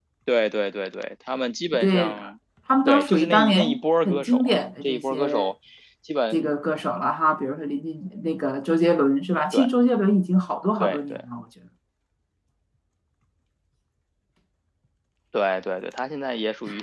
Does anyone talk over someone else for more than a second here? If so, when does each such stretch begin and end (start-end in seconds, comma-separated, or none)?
2.9-5.5